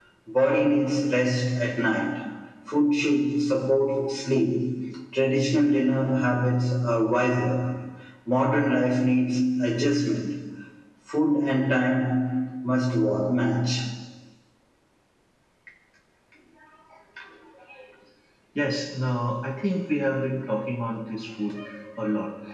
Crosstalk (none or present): none